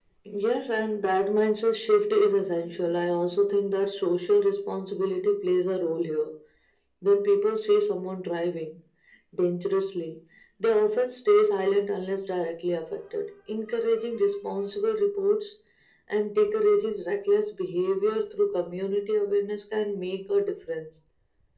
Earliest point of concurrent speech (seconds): none

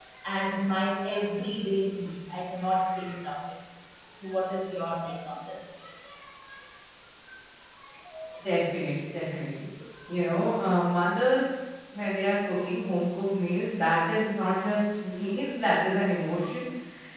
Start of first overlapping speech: none

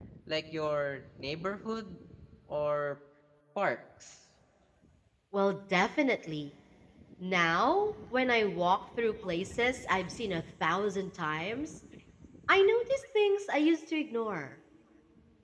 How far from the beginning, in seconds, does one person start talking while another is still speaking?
none

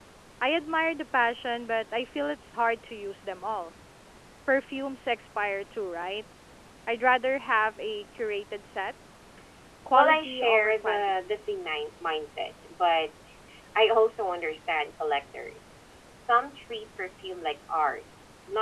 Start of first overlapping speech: 9.9 s

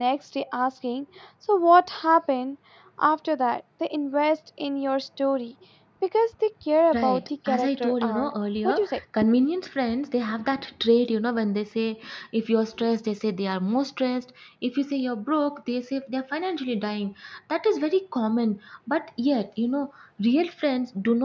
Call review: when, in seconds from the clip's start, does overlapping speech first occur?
6.9 s

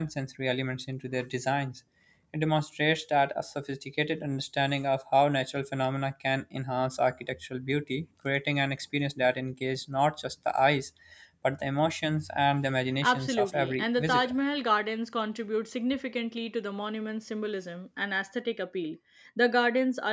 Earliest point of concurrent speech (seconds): 13.0 s

